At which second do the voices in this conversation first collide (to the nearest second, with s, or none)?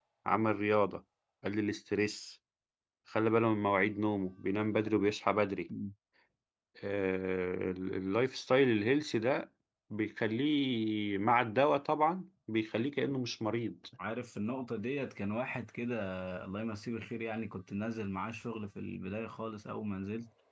none